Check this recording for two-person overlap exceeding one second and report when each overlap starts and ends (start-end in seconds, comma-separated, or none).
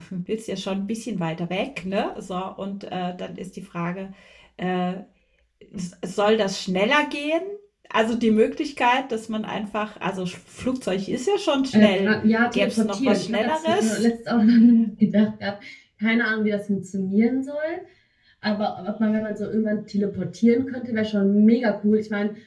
12.5-14.0